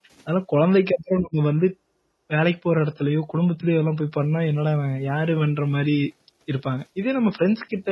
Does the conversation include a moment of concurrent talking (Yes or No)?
No